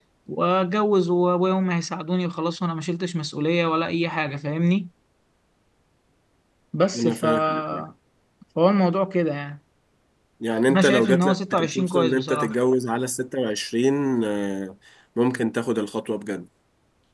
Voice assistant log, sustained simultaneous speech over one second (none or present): present